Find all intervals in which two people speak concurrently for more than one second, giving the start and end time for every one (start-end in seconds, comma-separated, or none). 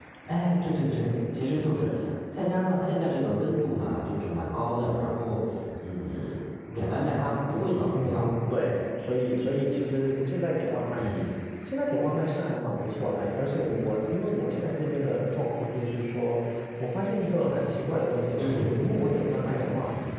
none